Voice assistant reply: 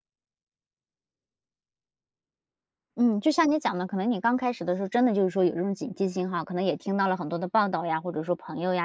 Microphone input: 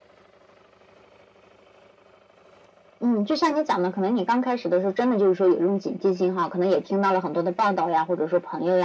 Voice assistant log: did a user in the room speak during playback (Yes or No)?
No